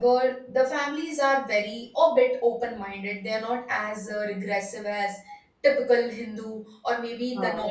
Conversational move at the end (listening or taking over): listening